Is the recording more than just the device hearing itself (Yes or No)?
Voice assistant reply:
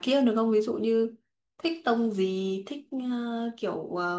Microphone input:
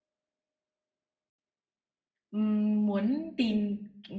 Yes